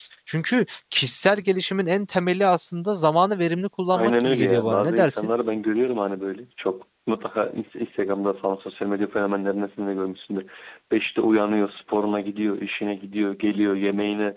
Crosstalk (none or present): present